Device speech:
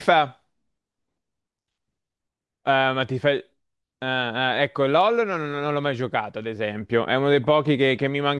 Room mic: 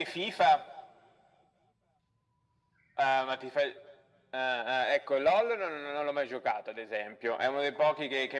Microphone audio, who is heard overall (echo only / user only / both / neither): echo only